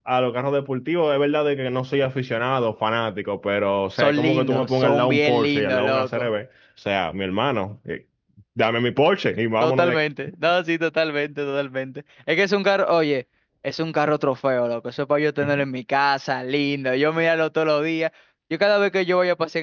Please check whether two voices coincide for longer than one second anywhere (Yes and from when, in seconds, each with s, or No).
Yes, from 4.0 s